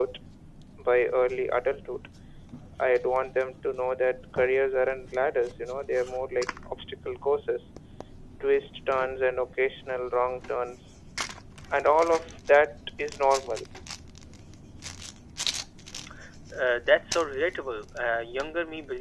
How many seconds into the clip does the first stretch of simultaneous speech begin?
none

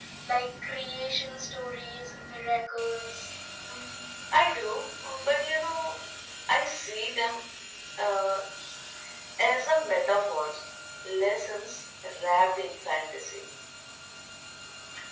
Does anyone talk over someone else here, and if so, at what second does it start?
none

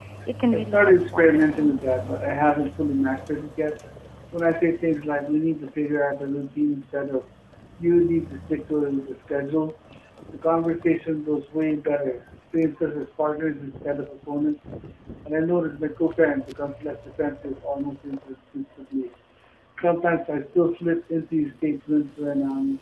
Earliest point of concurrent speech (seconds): 1 s

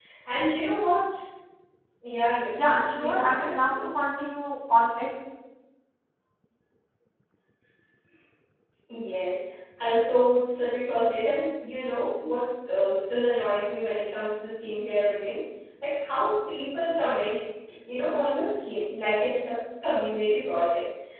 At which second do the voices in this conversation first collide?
3 s

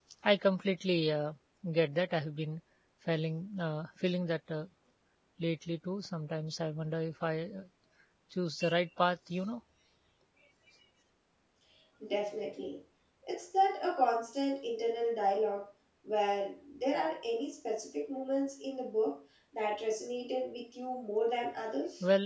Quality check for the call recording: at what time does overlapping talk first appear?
none

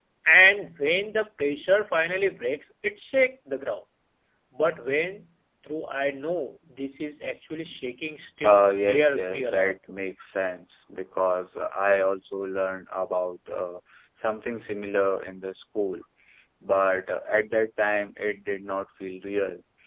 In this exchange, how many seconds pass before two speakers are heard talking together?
8 s

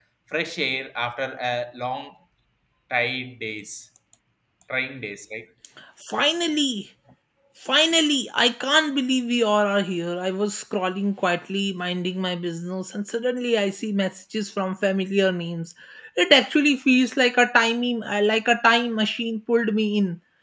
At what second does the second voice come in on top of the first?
none

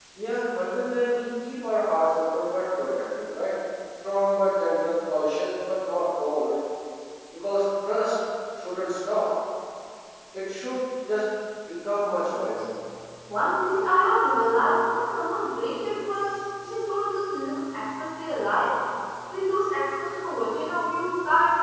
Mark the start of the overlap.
none

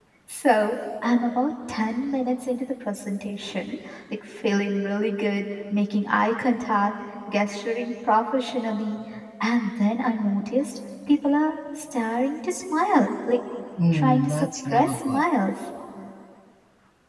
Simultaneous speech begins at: 14 s

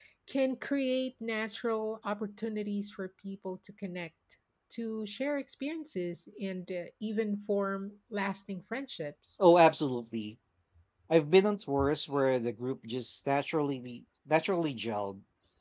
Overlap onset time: none

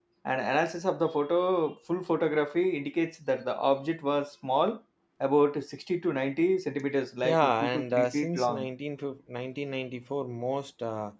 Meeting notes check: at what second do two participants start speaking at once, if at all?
7 s

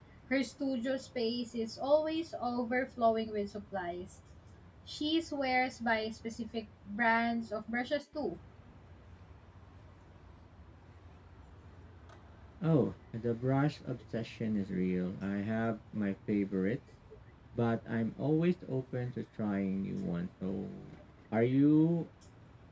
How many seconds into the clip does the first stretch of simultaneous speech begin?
none

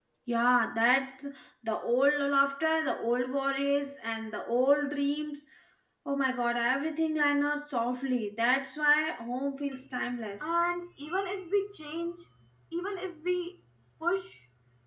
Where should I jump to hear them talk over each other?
none

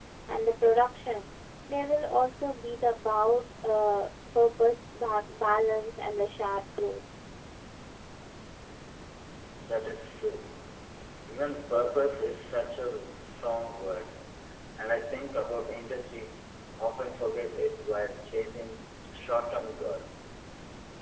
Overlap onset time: none

